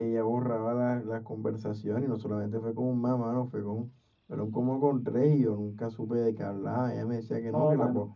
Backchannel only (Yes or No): Yes